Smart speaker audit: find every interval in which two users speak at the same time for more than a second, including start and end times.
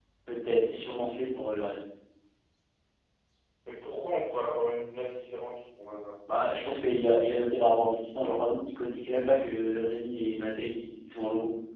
none

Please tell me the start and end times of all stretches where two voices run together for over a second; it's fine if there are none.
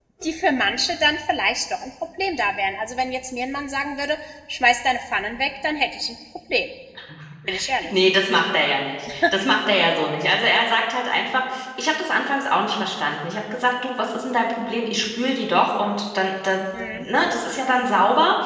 none

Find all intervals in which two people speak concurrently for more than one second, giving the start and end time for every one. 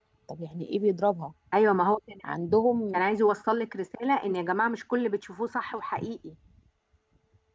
none

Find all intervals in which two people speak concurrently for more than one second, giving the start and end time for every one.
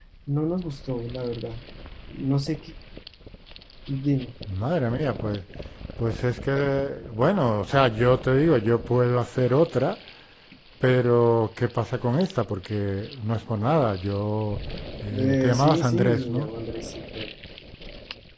15.1-16.5

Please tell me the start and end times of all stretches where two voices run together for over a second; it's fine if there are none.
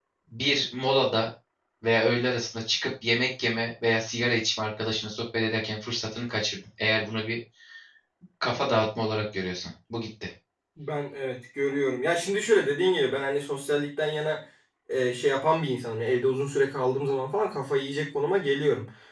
none

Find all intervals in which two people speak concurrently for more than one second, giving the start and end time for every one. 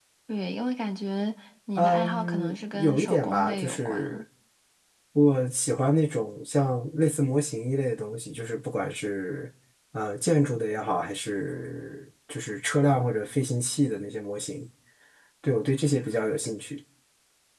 1.8-4.2

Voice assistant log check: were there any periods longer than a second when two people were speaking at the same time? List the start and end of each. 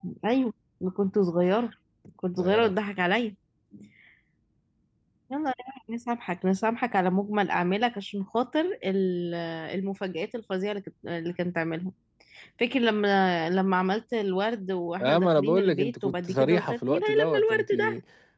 15.0-17.7

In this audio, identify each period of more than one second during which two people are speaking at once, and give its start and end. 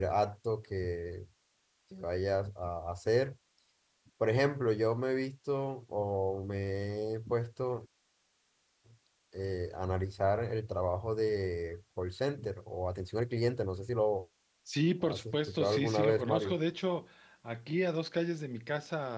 15.1-16.6

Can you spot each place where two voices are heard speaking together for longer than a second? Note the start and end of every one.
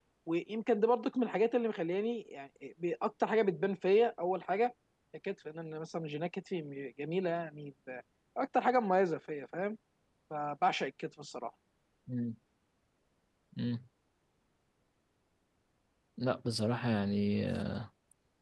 none

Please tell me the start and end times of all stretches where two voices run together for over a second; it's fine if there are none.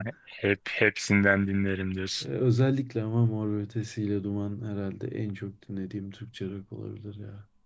none

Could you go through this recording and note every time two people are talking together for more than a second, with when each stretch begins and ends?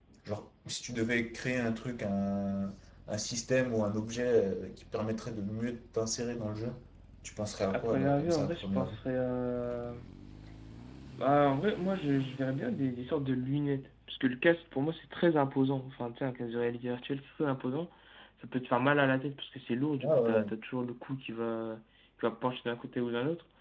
7.7-8.9

